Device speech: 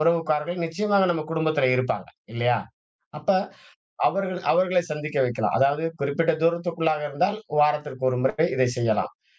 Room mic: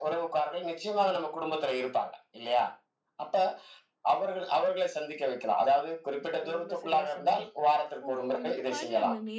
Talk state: both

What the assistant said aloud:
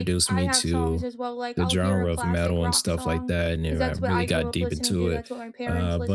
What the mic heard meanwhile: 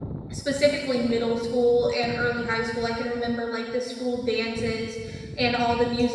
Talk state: user only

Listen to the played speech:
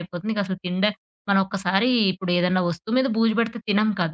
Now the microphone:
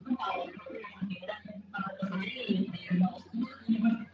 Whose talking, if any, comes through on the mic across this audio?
echo only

